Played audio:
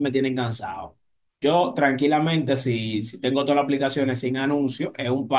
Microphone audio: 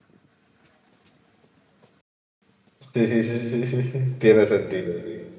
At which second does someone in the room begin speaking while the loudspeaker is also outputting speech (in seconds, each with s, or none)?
2.9 s